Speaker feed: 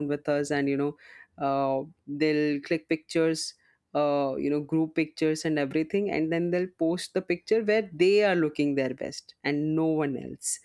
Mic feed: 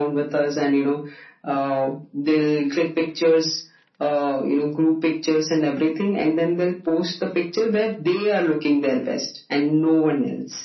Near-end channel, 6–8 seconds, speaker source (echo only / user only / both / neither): echo only